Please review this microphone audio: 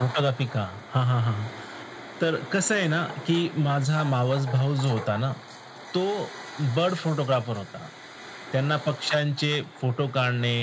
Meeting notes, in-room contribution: none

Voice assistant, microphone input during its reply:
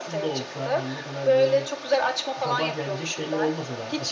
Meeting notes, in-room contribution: present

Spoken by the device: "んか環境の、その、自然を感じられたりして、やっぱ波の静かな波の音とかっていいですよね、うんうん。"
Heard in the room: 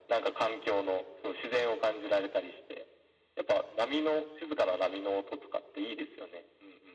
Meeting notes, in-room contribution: none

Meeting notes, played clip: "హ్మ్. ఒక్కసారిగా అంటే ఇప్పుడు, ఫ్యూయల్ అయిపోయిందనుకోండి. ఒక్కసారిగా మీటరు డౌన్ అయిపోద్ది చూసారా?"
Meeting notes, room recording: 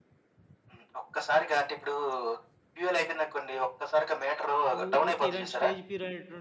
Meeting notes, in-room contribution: present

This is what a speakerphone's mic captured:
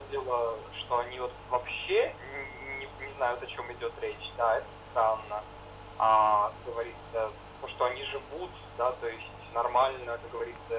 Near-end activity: none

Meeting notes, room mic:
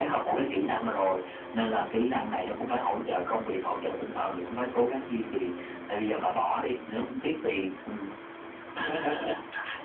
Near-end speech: none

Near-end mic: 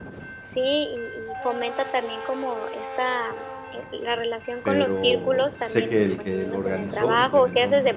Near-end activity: present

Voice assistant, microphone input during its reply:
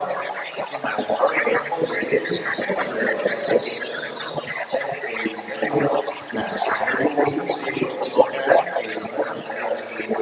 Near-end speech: none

